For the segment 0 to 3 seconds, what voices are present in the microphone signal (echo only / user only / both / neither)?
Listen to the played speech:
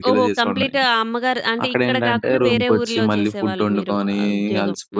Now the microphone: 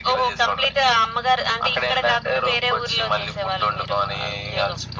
echo only